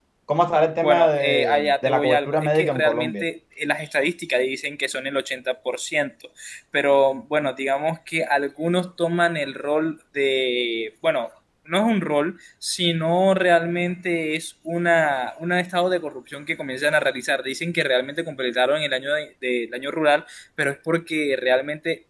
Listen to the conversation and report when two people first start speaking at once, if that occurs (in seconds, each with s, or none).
0.8 s